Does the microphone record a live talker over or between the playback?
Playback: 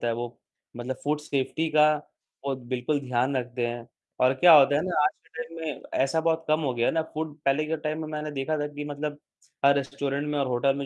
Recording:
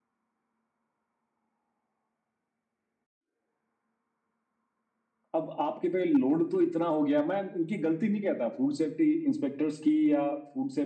Yes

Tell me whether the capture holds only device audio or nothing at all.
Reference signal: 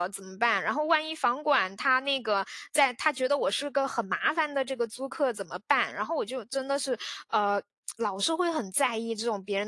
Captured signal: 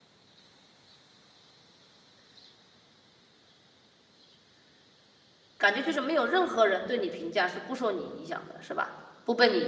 No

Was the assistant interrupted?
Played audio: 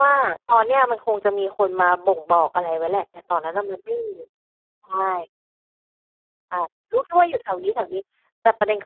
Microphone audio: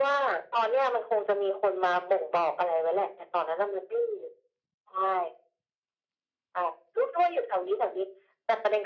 No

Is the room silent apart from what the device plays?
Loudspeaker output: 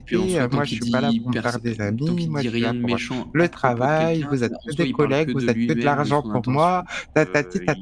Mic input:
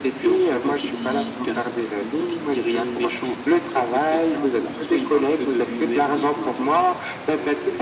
Yes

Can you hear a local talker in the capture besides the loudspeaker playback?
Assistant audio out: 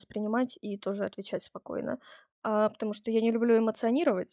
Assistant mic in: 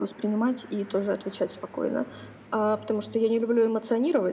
No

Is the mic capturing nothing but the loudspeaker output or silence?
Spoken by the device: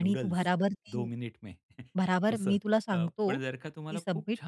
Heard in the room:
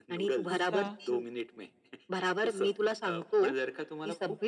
No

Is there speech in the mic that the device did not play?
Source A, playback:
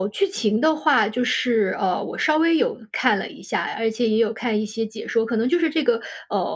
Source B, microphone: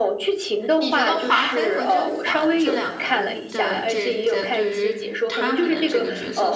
Yes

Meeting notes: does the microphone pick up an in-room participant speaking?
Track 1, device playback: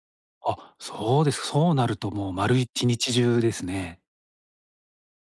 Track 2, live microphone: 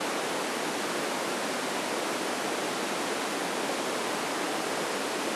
No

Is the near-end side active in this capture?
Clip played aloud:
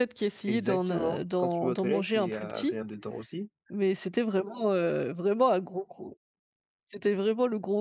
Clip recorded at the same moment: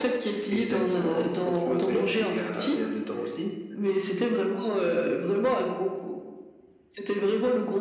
No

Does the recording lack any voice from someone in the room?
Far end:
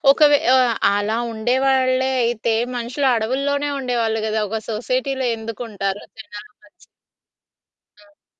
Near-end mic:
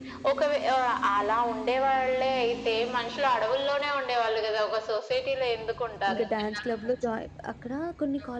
No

